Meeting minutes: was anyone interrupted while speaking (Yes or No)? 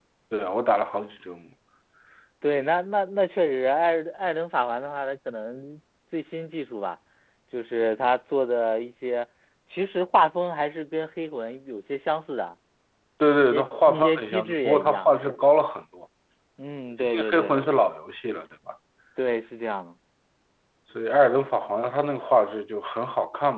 Yes